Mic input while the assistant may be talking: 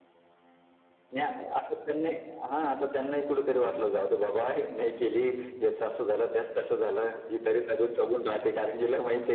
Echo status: present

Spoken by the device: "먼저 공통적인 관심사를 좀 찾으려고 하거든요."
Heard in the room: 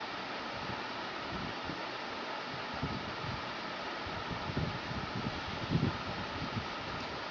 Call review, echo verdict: none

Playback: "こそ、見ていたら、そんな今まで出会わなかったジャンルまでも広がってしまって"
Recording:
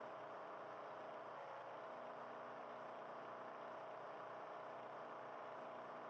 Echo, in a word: none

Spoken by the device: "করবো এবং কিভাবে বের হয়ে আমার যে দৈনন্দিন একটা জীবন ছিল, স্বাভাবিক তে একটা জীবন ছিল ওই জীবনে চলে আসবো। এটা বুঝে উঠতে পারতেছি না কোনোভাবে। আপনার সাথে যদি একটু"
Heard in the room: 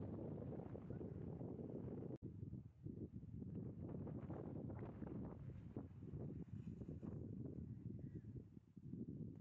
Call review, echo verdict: none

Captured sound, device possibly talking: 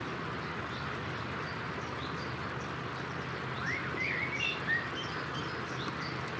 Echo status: none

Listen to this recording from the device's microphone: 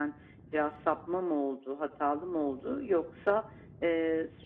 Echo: present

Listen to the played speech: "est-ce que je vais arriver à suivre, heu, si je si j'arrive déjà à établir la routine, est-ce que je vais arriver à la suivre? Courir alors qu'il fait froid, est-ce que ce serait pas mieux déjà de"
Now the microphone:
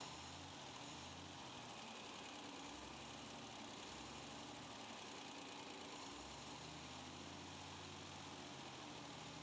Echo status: none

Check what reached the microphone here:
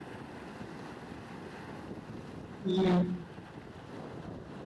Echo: none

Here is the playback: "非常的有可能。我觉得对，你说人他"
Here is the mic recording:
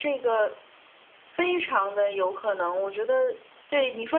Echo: present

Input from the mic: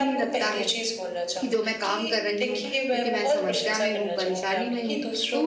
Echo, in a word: present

